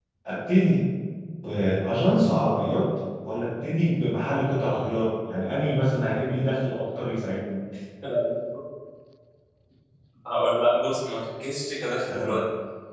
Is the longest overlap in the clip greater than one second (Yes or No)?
No